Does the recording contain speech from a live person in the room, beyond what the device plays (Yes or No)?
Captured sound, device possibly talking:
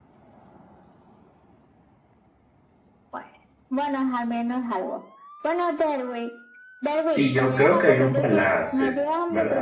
Yes